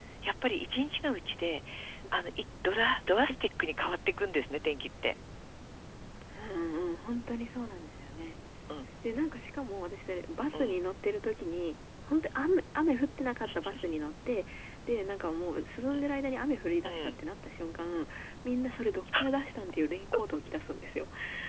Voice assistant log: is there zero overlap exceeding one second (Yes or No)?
Yes